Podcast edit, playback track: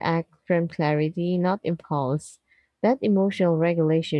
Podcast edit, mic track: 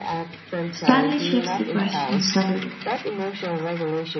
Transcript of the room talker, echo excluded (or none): Stanley shifts the question subtly.